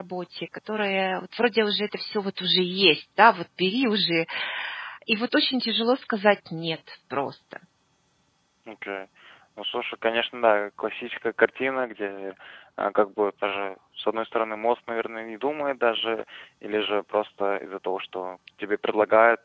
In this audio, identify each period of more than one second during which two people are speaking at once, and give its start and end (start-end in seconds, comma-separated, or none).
none